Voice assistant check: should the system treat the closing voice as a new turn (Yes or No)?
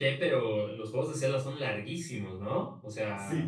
Yes